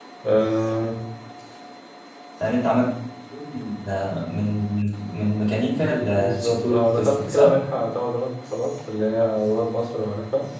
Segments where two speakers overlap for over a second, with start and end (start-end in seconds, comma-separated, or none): 6.2-7.5